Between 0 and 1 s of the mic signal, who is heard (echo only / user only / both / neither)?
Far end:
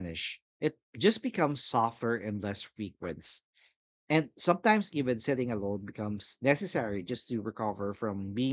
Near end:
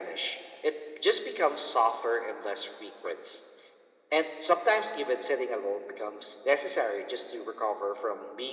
echo only